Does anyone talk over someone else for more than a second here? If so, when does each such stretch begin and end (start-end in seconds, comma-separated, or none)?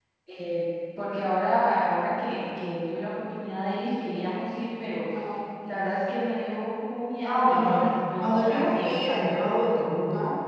7.3-9.4